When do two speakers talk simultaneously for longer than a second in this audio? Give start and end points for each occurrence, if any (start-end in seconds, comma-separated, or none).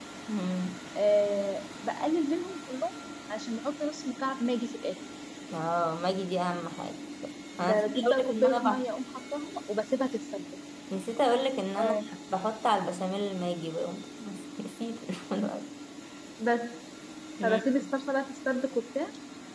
7.6-8.8